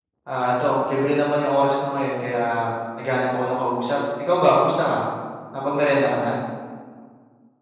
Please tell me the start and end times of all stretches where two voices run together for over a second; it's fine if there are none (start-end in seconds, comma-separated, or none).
none